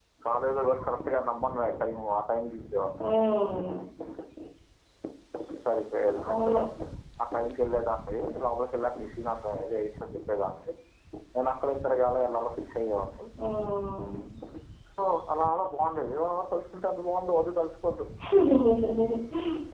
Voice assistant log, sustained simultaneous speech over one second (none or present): none